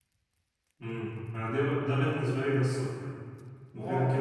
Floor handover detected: Yes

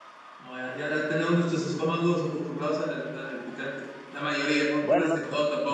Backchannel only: No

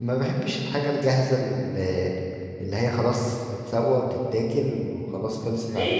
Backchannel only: No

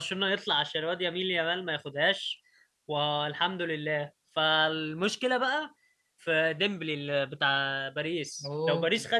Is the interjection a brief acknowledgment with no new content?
Yes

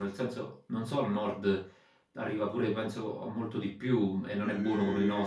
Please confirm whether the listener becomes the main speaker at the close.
Yes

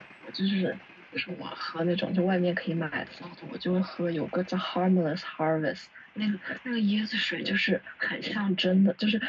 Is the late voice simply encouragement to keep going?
Yes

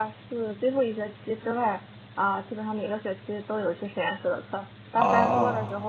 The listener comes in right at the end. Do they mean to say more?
No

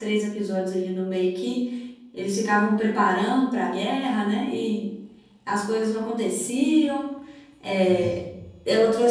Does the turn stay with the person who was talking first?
Yes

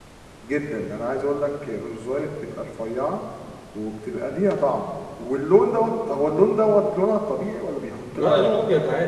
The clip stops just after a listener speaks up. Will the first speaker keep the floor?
No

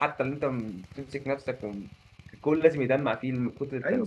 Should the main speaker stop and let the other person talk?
Yes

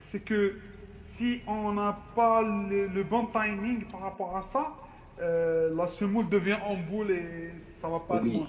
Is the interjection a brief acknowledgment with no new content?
No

